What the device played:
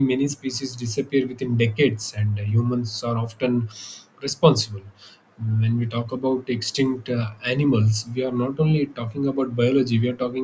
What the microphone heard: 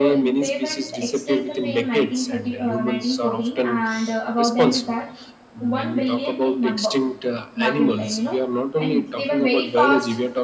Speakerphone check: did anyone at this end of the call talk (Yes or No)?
Yes